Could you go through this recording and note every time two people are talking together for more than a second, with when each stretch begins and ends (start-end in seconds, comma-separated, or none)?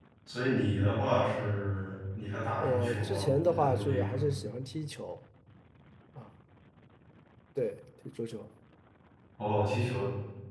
2.6-4.2